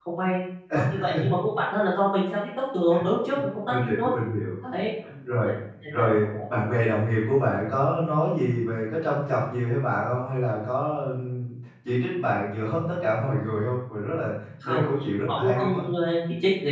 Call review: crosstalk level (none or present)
present